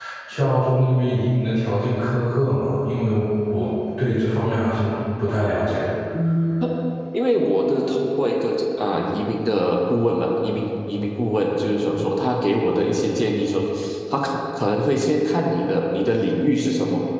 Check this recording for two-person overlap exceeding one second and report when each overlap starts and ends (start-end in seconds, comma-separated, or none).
none